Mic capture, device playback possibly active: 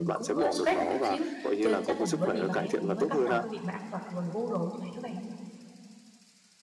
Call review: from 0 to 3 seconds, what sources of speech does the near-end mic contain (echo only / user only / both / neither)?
both